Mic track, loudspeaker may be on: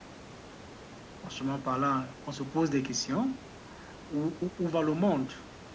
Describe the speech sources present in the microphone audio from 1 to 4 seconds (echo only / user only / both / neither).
user only